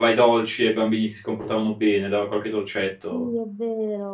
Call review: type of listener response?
taking over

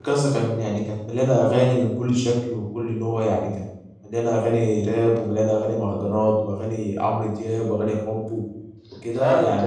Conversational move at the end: taking over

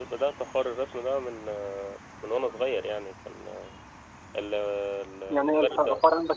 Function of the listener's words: taking over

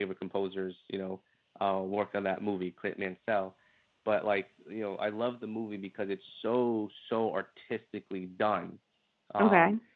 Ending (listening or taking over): listening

